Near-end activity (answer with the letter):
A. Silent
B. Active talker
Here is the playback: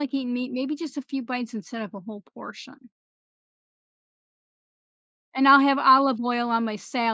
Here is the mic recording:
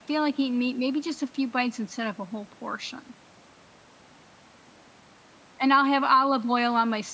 A